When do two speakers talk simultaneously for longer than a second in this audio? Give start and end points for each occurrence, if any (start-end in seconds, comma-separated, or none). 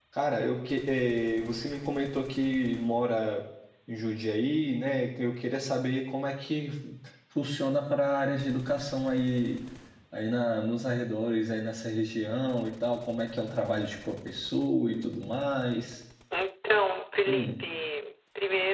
none